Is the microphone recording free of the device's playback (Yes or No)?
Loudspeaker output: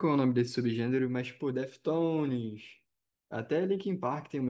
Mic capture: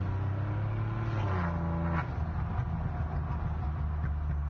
Yes